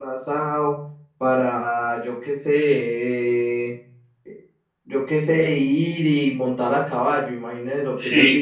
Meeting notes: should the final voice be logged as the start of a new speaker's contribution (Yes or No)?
Yes